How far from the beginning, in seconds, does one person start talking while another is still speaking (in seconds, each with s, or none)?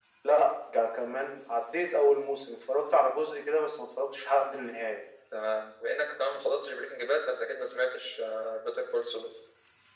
none